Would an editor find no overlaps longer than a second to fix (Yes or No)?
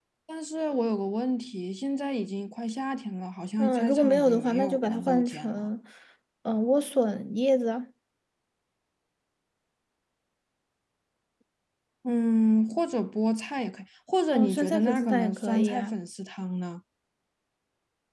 No